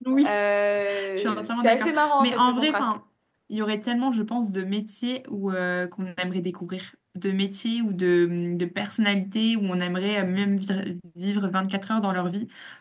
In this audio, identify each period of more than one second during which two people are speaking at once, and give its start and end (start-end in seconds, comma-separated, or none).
1.2-2.9